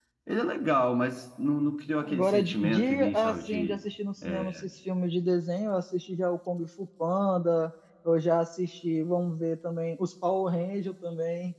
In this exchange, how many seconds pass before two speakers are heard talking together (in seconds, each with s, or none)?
2.0 s